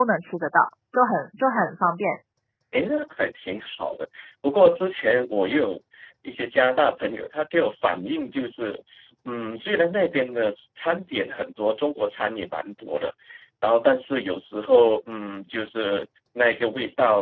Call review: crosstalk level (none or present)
none